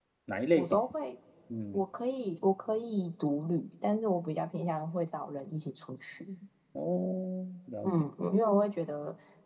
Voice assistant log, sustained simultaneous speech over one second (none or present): none